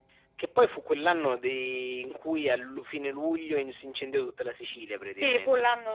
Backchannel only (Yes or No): No